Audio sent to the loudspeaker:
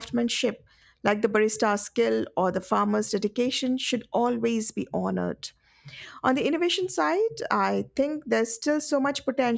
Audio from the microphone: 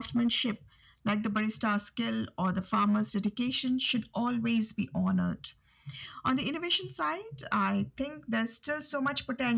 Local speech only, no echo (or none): none